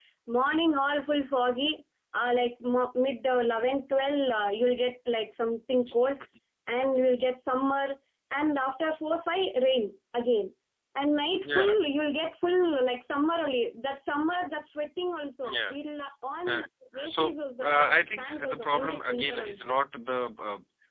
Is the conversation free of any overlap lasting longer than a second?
No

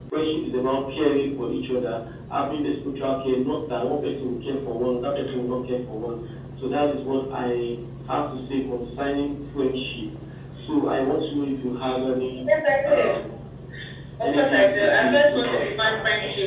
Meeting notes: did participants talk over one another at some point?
Yes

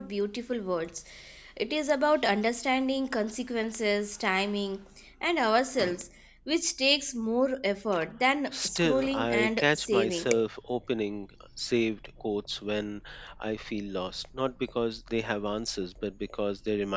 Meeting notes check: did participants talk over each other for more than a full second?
Yes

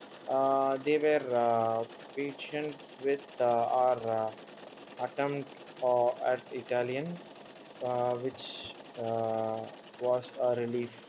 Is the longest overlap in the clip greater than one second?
No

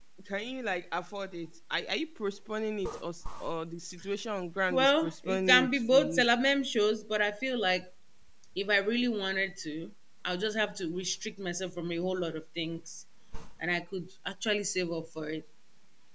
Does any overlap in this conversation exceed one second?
Yes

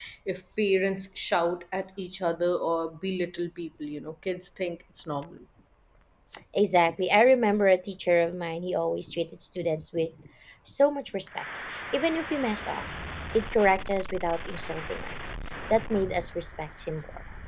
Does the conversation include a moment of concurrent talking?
No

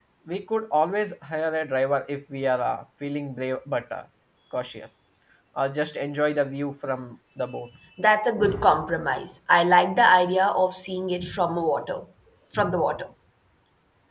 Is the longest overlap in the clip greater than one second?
No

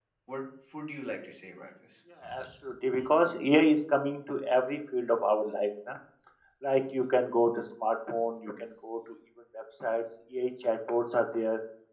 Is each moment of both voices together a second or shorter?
Yes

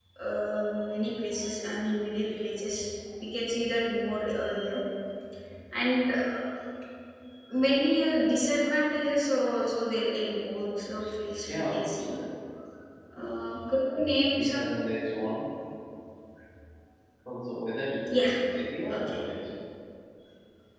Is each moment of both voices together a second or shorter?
Yes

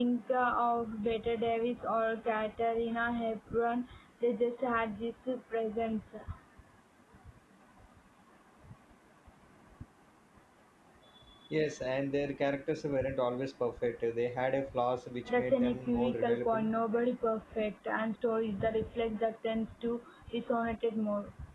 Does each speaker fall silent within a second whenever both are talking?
No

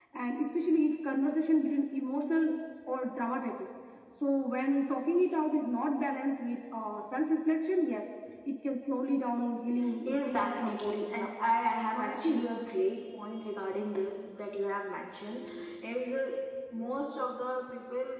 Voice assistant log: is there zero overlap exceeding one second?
No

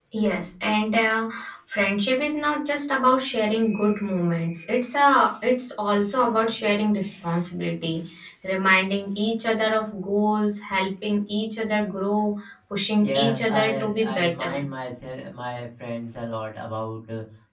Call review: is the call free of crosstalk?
No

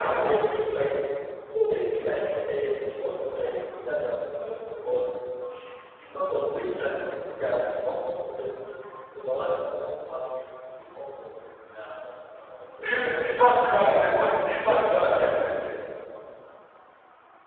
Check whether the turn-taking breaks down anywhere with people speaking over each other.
Yes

